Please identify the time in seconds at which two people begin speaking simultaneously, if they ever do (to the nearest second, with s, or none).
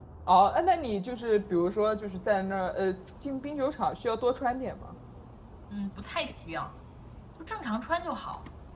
none